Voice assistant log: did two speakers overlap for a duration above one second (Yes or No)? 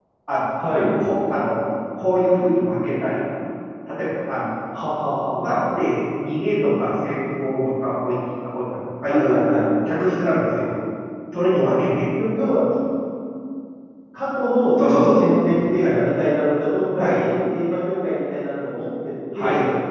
No